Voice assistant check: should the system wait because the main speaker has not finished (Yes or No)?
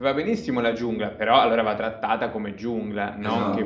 No